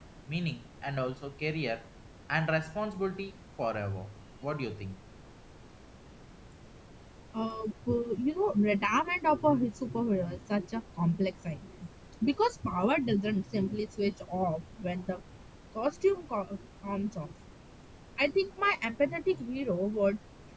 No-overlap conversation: Yes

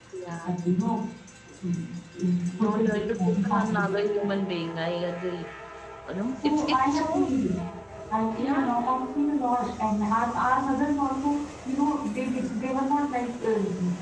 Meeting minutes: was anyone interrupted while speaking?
Yes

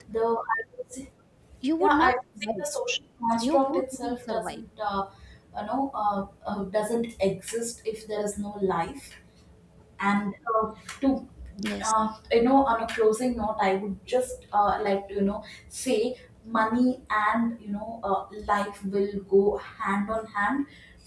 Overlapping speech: Yes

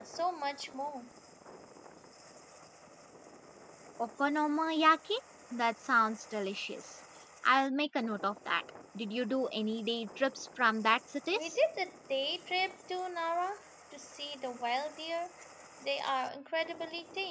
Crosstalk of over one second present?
No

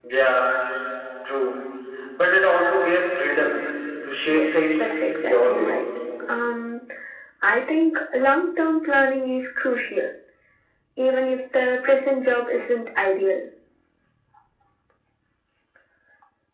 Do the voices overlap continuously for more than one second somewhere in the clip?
Yes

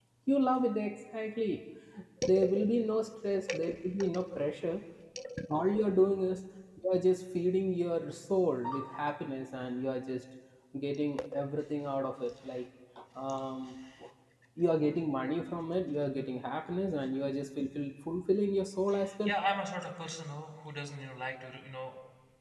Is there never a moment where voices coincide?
Yes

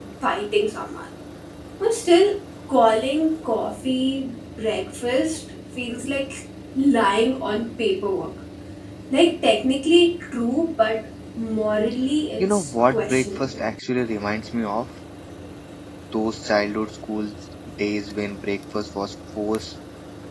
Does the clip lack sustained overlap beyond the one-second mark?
No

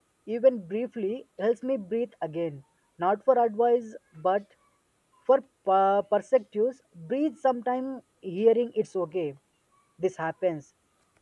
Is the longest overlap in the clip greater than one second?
No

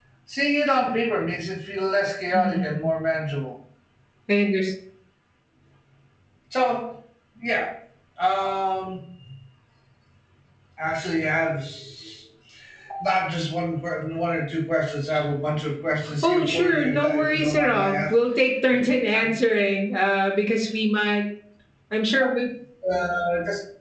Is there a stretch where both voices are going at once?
Yes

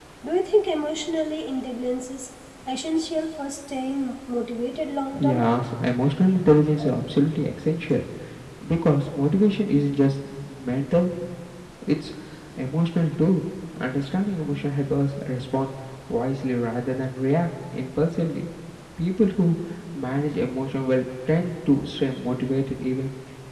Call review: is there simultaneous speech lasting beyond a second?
No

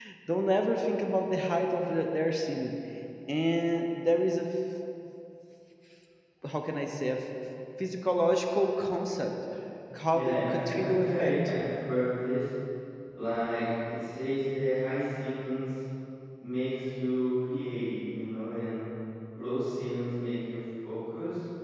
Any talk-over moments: Yes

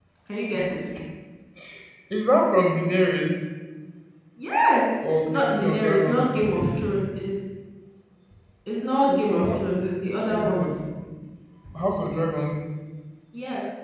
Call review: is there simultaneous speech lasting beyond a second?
Yes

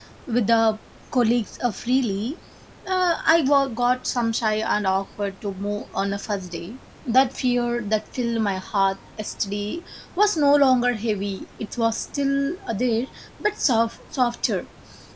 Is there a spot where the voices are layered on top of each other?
No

